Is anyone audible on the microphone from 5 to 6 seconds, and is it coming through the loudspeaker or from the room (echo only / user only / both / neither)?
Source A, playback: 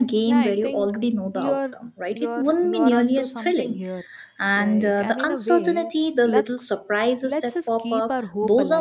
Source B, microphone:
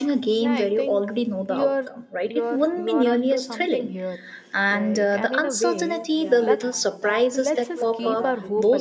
echo only